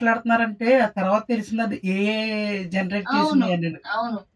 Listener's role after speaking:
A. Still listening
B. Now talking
B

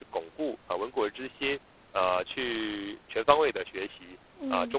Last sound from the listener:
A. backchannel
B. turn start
A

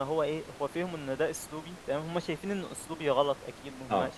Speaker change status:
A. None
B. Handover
A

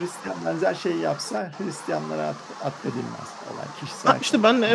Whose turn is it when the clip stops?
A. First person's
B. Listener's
B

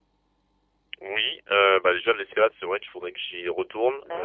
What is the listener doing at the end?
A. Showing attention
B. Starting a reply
A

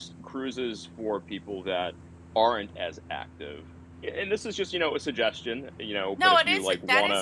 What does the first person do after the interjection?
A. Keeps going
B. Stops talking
B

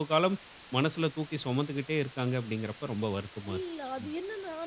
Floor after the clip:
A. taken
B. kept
A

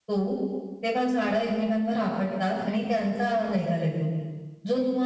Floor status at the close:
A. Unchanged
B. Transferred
A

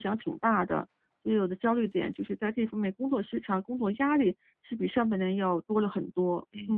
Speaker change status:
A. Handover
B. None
A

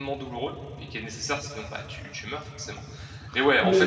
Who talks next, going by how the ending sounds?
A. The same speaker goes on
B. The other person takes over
A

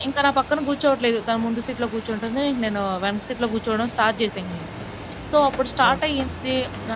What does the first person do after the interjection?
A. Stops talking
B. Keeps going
B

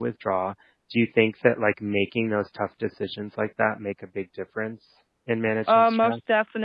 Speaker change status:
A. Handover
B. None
A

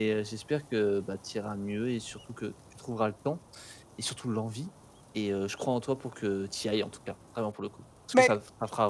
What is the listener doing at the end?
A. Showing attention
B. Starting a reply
A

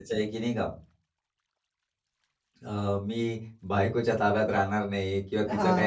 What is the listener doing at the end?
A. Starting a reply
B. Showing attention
B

